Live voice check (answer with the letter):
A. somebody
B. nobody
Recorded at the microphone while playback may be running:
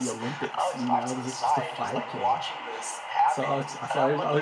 A